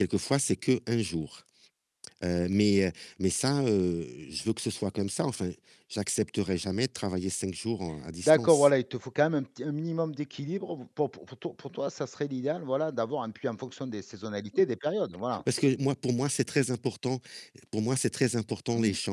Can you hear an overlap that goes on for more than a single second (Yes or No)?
No